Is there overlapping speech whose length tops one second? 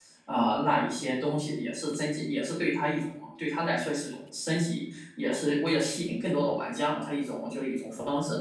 No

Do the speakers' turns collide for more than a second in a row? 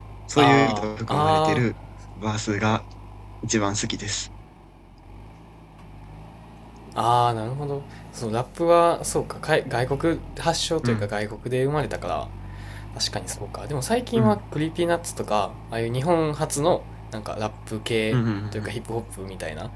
Yes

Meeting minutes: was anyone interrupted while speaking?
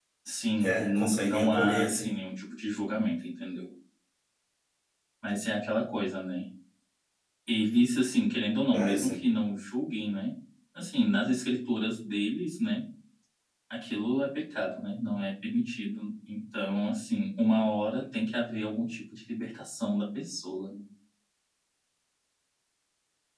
Yes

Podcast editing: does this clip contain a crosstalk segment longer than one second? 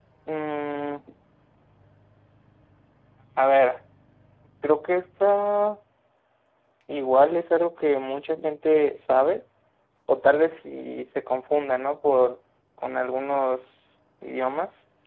No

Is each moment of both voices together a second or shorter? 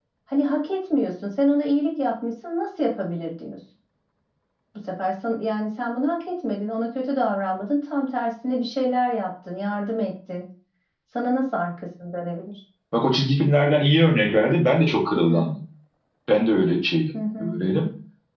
Yes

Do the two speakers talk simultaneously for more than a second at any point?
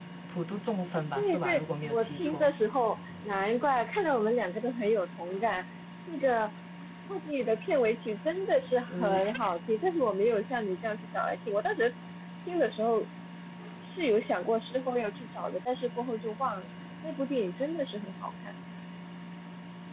Yes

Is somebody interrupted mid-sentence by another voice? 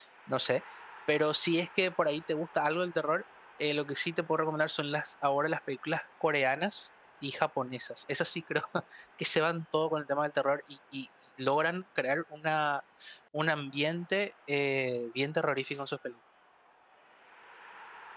No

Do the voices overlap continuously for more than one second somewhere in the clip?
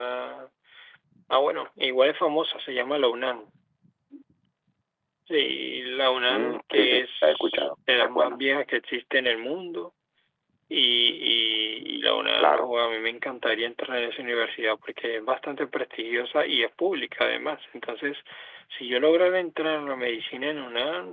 Yes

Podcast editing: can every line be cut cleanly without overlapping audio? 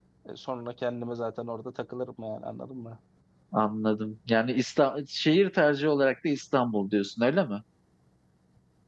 Yes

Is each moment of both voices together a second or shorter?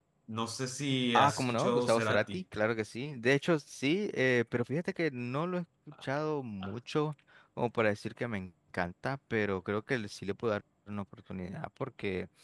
No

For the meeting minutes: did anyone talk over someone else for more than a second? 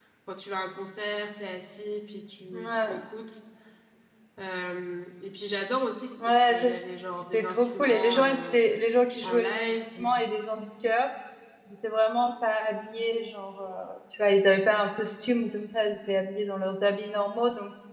Yes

